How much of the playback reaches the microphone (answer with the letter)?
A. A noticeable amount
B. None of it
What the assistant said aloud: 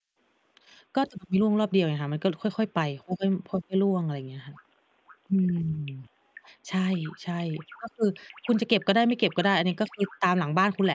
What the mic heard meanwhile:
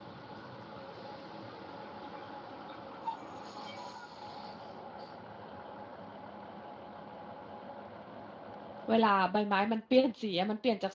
B